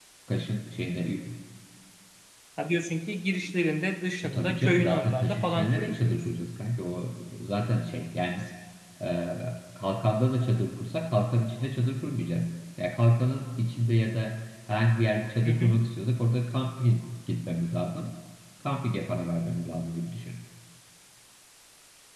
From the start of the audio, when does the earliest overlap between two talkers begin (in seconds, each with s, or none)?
4.2 s